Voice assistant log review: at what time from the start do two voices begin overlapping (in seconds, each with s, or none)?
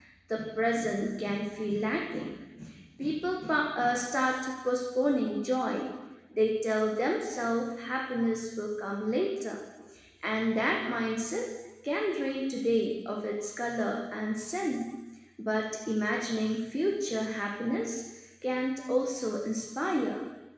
none